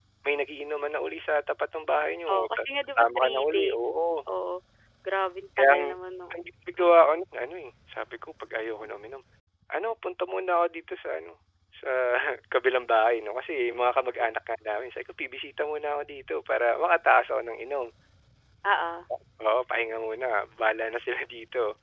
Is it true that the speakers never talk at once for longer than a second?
No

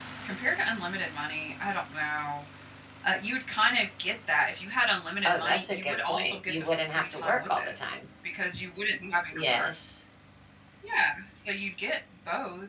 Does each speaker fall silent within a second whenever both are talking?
No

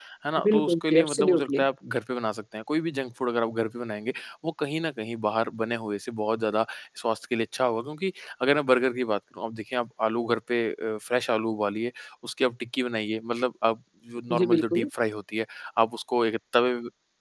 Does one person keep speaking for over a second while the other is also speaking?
Yes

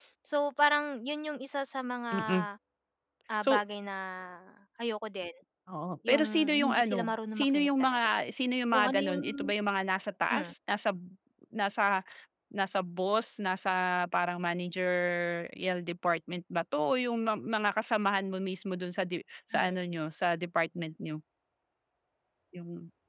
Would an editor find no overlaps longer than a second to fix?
No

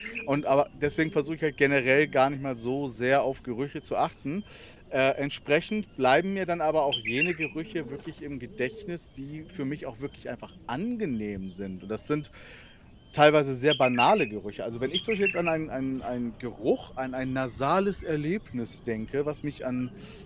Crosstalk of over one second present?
No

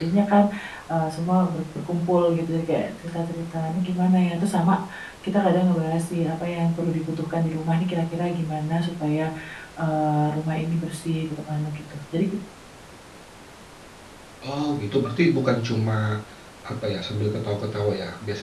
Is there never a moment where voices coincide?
Yes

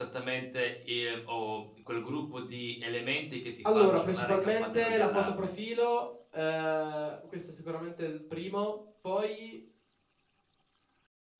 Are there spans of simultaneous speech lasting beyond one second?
Yes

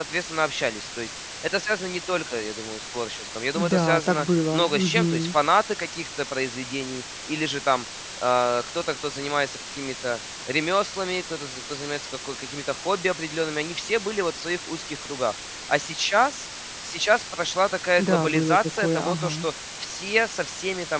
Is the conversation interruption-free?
No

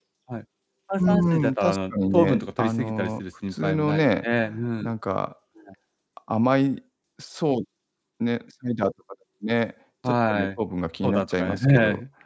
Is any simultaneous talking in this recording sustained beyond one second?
Yes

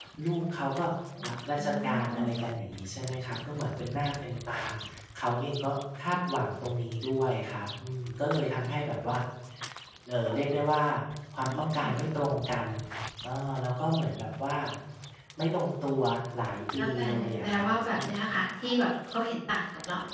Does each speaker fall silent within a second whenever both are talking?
No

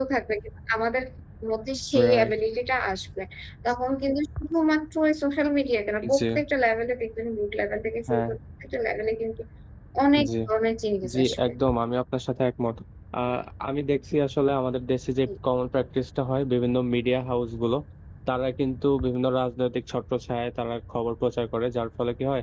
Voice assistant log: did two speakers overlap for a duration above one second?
No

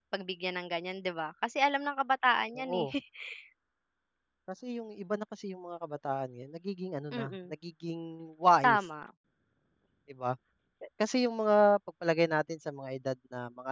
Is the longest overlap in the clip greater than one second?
No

